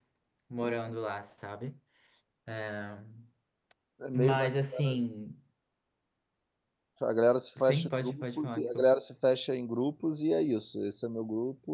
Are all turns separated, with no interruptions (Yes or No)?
No